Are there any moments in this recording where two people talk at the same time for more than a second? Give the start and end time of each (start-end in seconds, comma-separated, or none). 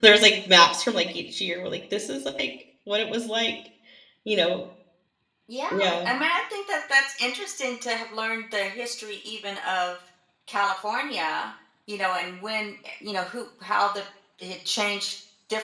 none